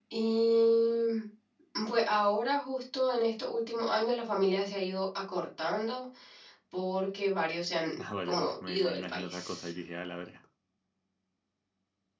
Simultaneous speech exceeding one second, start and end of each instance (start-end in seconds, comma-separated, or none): 8.2-9.7